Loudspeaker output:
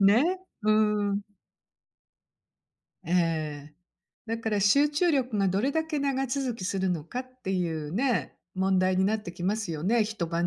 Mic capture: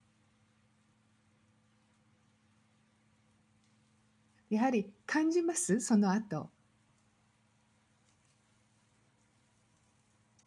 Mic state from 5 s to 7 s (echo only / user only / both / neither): user only